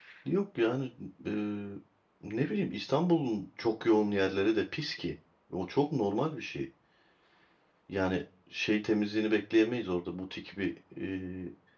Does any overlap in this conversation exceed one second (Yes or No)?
No